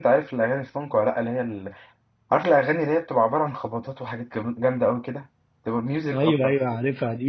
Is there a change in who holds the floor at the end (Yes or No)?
Yes